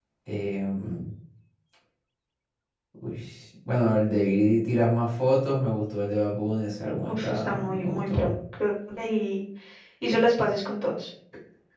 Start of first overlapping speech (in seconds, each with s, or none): 7.0 s